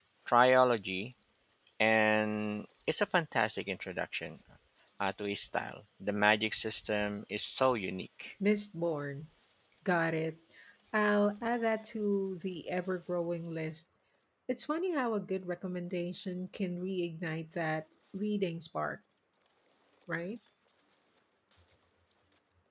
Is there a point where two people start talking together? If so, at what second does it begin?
none

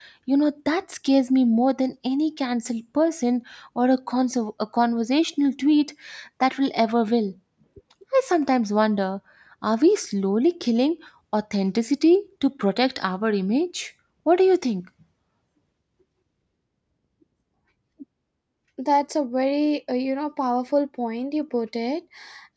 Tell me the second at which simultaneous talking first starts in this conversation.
none

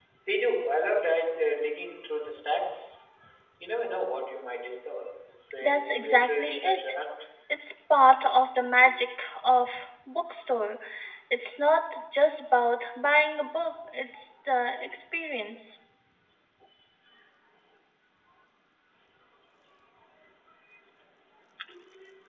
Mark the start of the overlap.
5.6 s

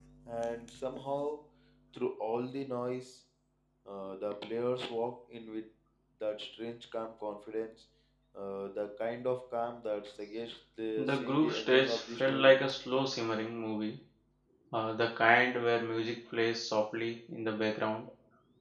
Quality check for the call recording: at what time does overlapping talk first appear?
11.0 s

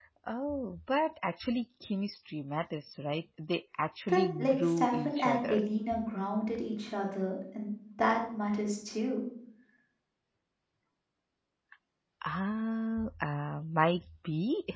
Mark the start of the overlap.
4.1 s

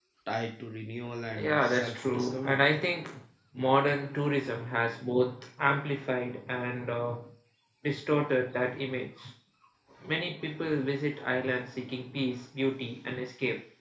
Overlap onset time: 1.4 s

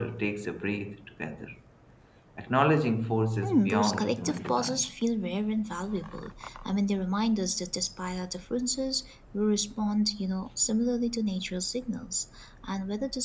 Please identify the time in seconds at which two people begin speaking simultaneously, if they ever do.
3.4 s

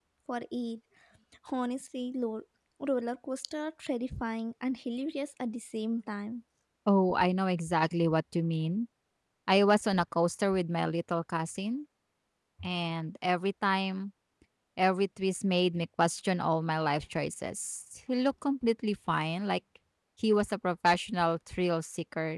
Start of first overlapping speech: none

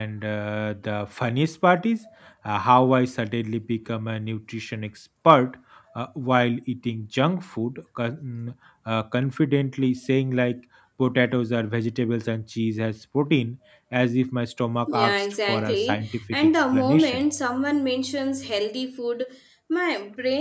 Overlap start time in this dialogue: 14.9 s

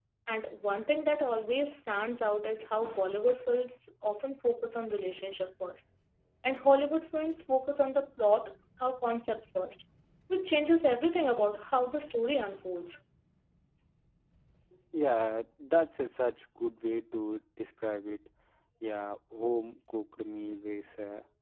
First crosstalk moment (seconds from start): none

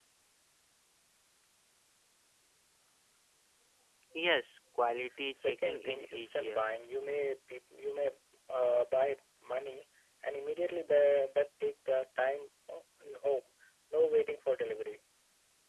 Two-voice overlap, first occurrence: 5.3 s

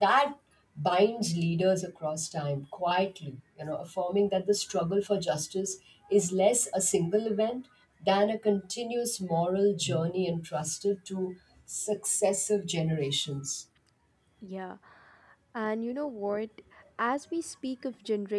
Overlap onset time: none

